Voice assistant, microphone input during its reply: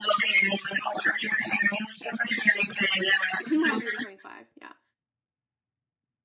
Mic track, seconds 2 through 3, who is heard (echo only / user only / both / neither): echo only